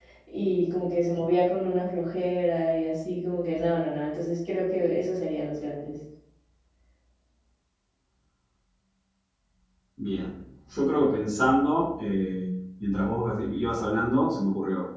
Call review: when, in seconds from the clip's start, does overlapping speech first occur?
none

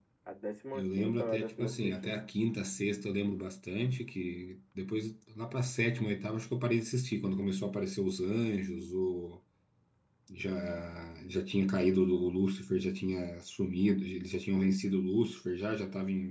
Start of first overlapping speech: 0.7 s

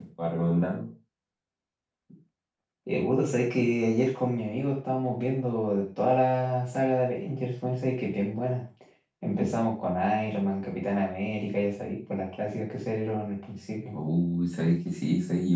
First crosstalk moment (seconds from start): none

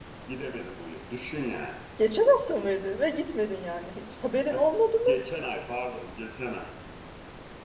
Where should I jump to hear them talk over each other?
none

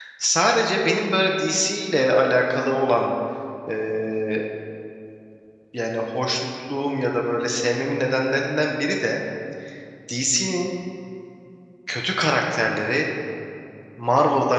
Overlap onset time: none

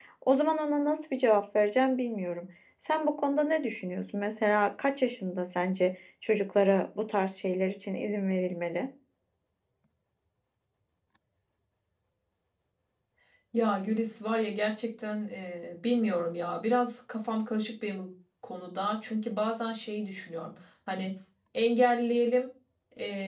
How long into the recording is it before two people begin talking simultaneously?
none

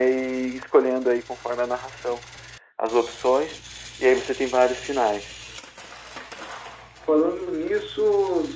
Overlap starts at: none

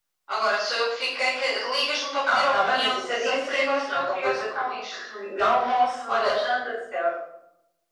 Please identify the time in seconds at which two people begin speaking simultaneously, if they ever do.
2.2 s

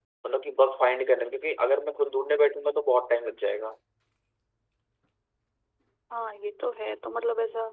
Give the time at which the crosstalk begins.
none

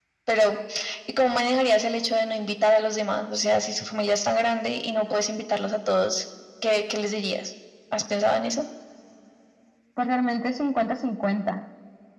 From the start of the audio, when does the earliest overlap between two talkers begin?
none

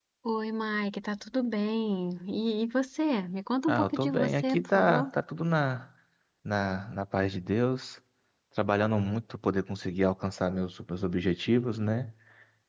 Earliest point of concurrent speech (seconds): 3.7 s

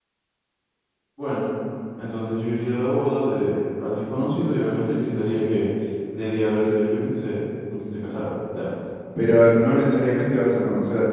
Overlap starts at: none

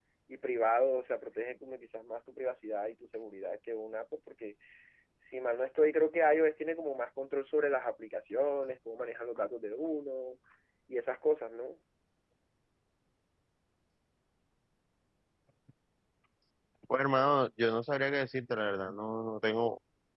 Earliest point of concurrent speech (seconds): none

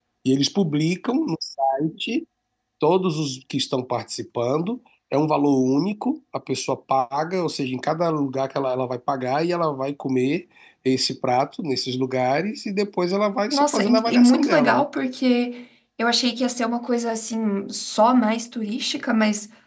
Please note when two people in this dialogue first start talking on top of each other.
13.5 s

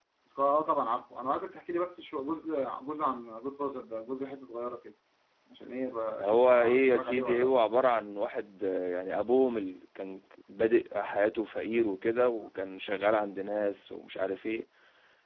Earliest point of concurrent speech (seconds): 6.2 s

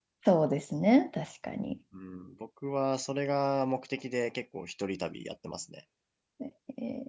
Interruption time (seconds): none

